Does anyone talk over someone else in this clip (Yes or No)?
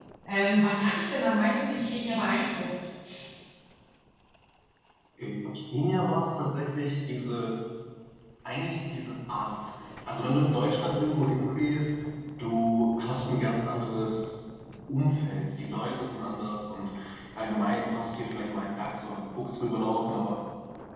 No